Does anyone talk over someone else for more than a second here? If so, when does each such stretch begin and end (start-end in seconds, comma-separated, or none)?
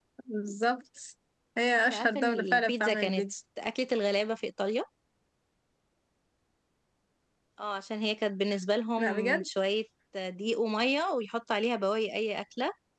1.8-3.2